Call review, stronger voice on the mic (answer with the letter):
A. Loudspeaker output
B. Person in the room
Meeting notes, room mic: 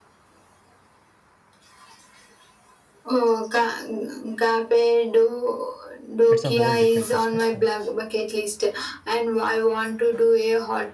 A